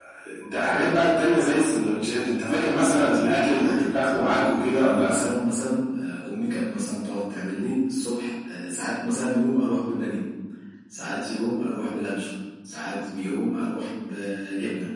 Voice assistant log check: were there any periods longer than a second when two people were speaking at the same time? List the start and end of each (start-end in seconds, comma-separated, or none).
3.0-5.2